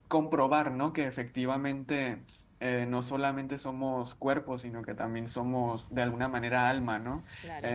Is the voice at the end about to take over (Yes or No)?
Yes